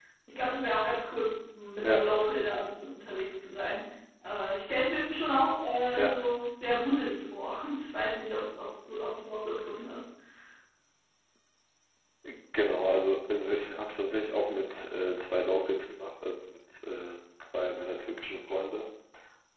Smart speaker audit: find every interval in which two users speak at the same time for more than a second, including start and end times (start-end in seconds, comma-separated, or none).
none